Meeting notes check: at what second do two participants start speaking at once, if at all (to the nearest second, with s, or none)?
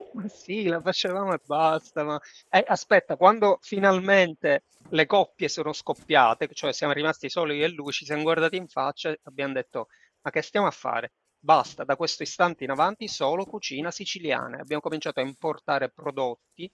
none